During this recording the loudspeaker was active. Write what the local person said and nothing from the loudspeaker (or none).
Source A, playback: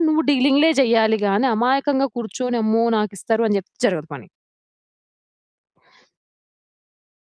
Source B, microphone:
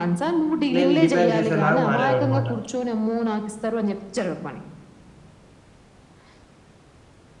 నేను డిమాండ్ చేసేలాగా మారారన్నమాట.